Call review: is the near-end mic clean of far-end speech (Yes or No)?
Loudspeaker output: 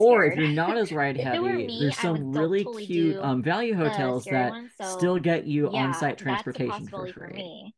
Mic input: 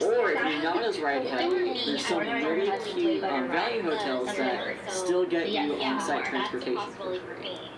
No